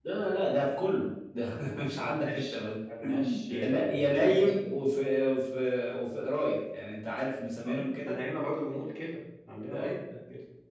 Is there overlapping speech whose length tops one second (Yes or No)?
Yes